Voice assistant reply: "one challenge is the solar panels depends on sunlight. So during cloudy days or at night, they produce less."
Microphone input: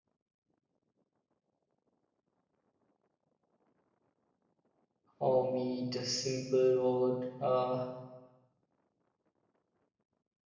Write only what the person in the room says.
oh, me the simple word? Uh,

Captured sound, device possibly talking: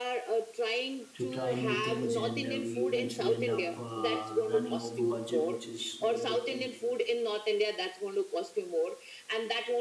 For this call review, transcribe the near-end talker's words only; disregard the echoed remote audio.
to try new things, and uh, we eventually end up uh, running over budget, which is not a good thing.

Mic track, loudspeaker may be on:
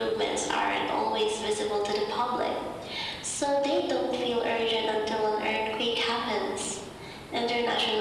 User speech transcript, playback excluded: none

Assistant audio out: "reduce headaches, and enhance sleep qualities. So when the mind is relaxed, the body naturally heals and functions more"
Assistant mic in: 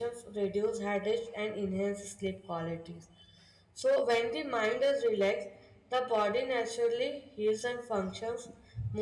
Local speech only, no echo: none

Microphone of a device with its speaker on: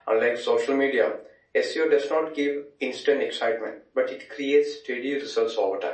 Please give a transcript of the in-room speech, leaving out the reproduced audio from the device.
none

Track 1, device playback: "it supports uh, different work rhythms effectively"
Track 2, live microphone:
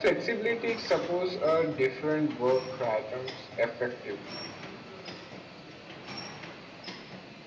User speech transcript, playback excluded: none

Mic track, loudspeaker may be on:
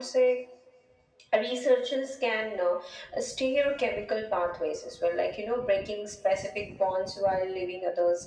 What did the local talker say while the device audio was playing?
none

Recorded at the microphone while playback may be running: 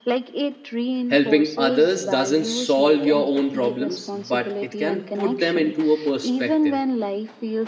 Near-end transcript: Helping others doesn't solve your own problems, but it can put them into a perspective.

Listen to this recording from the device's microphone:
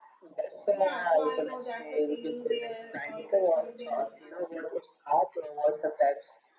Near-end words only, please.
Yeah, so I know that's a feeling. There always something

